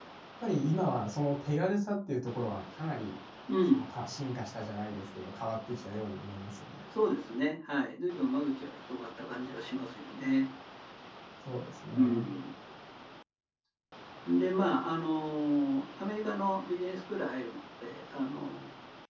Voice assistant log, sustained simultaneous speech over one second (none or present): none